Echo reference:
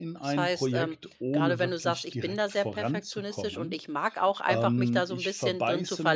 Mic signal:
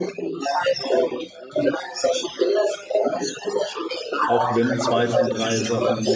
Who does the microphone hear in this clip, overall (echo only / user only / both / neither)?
both